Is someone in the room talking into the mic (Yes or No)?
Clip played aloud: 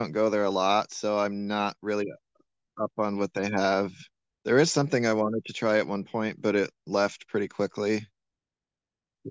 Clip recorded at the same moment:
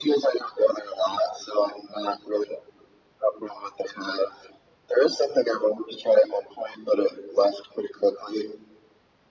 No